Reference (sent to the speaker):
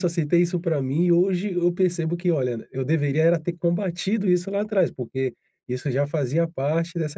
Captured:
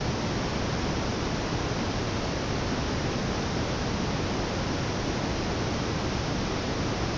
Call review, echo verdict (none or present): none